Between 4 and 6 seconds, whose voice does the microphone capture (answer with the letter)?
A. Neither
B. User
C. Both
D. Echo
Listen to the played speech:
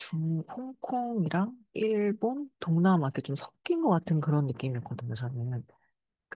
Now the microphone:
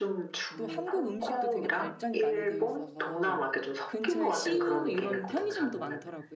C